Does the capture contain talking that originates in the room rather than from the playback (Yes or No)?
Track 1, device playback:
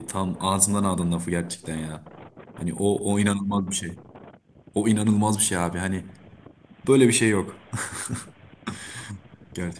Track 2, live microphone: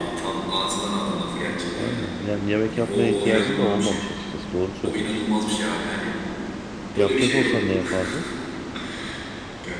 Yes